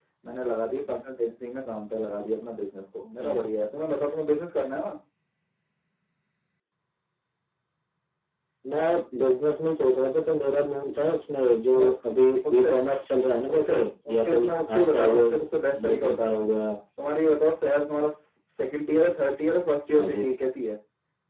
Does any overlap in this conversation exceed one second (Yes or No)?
Yes